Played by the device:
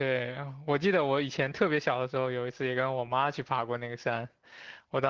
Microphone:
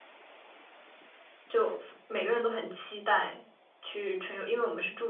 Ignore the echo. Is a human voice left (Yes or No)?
Yes